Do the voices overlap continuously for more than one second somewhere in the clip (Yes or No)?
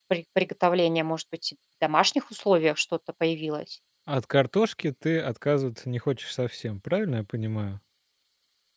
No